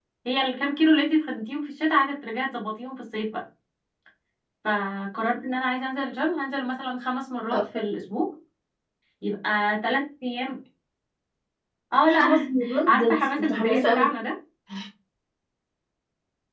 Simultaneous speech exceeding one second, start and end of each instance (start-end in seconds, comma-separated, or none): 12.1-14.1